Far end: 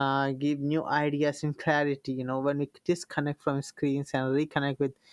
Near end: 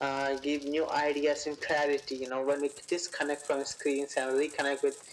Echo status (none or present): present